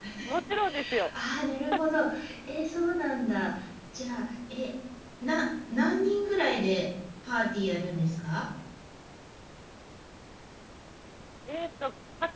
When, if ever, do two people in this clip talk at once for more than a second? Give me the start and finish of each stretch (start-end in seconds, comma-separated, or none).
none